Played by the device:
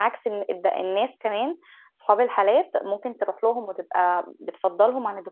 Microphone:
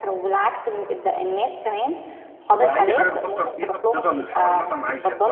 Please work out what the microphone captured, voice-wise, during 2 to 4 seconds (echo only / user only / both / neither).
both